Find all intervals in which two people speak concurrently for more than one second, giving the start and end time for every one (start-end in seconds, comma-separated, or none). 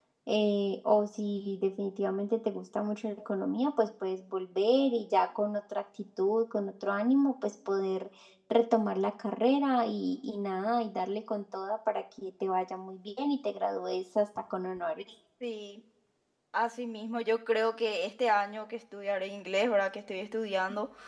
none